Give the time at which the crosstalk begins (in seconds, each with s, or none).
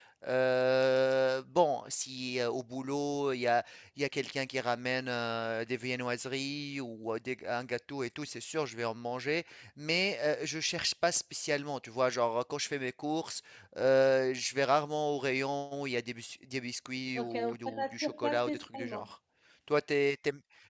17.1 s